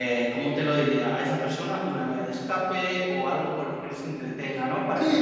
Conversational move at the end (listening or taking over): taking over